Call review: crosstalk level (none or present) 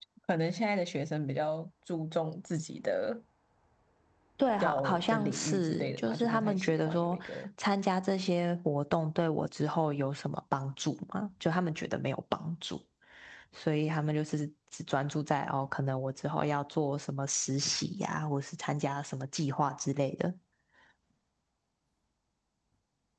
present